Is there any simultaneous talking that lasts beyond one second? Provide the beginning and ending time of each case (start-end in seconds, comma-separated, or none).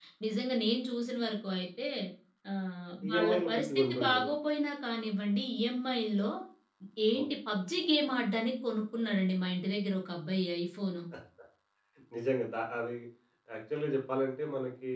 3.1-4.3